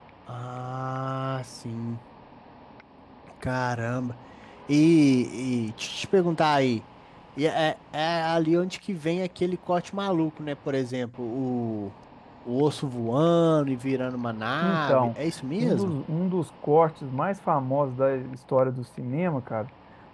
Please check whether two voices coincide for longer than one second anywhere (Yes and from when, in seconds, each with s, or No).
No